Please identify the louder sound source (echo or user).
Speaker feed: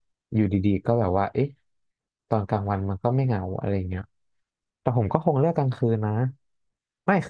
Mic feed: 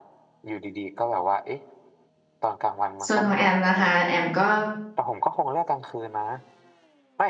user